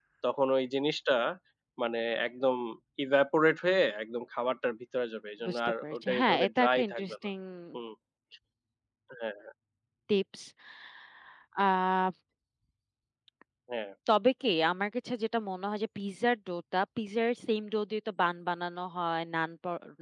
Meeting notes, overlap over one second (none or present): present